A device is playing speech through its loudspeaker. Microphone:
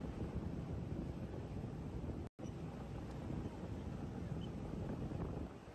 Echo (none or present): none